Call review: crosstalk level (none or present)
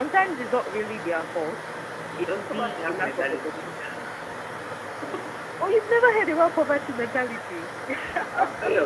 present